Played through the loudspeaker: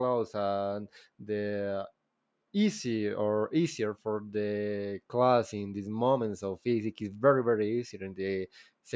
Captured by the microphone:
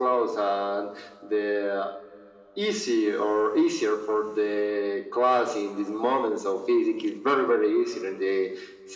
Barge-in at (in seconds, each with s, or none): none